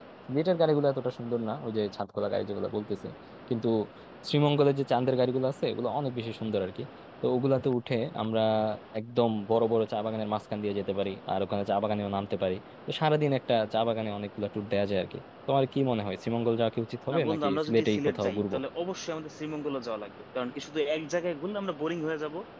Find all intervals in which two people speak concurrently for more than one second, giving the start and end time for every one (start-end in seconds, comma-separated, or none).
17.1-18.6